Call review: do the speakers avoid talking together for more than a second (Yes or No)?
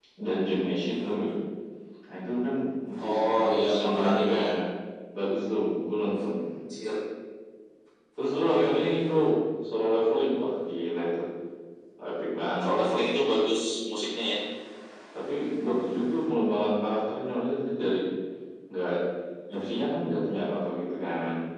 No